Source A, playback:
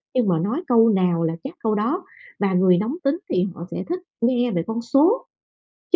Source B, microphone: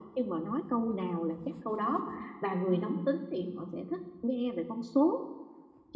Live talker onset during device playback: 2.7 s

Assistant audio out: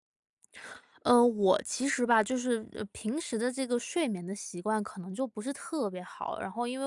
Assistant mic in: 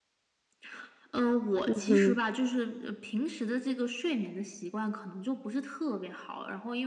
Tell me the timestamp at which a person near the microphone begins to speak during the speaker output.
1.7 s

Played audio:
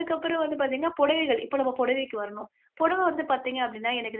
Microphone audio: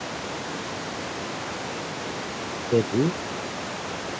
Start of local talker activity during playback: 2.7 s

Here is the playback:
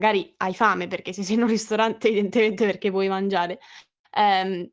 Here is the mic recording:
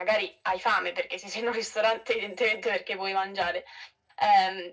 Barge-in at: none

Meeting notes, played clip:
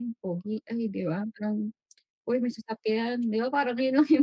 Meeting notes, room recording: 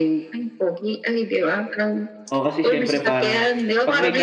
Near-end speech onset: 2.3 s

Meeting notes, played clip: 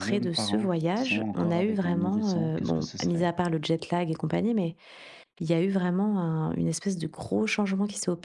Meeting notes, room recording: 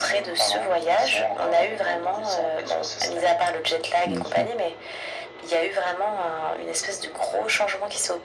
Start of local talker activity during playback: 4.0 s

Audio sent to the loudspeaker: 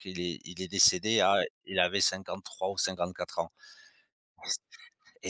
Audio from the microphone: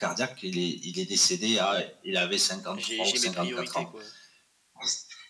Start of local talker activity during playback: 2.7 s

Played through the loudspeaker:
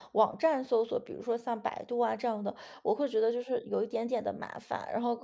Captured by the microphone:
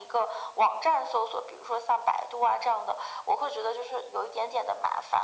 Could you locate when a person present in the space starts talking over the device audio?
none

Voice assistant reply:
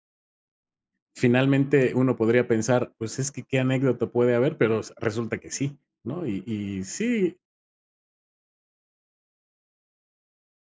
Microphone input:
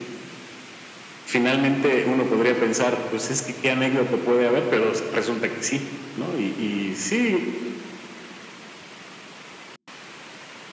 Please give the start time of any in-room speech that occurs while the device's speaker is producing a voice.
none

